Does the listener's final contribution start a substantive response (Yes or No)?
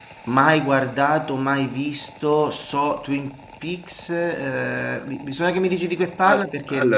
Yes